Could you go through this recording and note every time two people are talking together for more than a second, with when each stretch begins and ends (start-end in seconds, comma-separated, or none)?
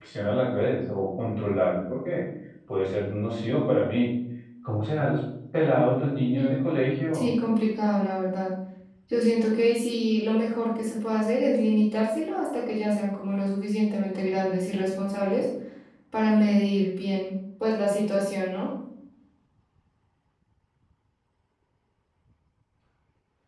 none